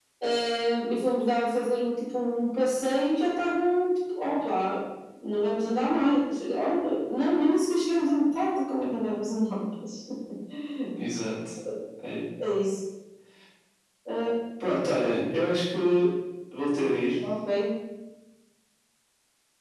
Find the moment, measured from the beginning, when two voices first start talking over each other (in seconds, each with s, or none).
none